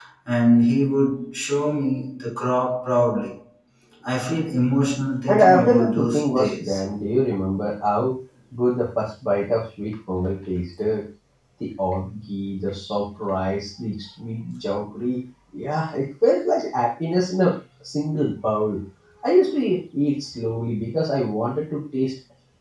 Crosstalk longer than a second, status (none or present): present